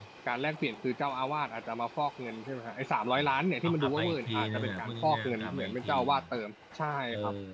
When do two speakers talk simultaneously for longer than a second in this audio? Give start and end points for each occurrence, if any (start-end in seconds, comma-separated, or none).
3.6-6.1